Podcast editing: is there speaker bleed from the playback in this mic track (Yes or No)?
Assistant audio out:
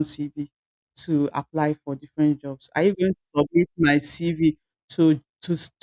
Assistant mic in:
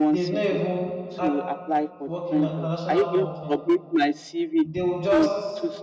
Yes